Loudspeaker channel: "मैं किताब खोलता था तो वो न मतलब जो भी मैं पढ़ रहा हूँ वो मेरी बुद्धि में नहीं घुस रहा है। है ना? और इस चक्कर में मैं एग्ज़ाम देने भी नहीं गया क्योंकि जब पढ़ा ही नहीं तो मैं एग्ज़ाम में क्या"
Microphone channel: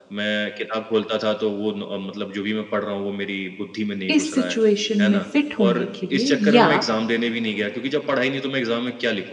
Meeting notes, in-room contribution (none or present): present